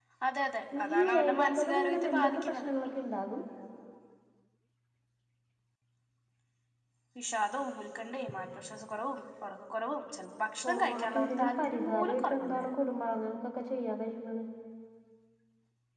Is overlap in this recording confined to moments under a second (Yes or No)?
No